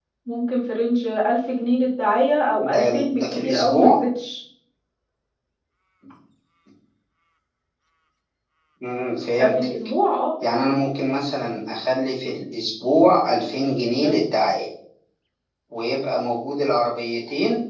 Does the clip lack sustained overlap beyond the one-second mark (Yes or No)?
No